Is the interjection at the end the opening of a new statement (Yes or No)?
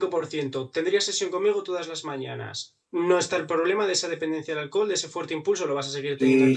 Yes